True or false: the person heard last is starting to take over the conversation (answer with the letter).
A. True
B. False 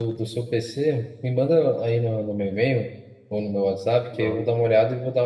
B